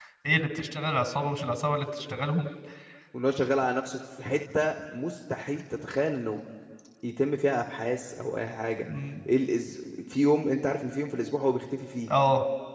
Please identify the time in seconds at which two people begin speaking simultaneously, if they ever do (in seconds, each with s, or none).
none